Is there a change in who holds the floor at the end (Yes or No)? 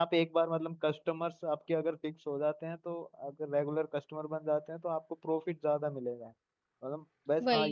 No